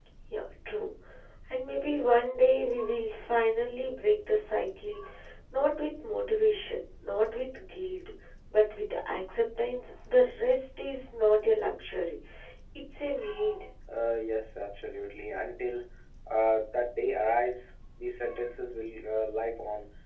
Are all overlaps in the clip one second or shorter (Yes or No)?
Yes